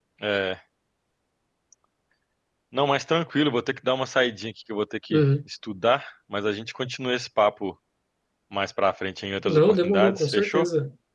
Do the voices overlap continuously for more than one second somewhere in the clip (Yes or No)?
Yes